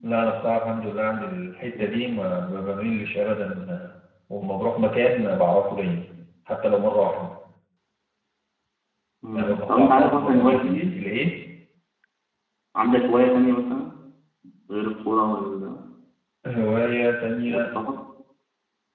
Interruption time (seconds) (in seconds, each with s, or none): 9.3 s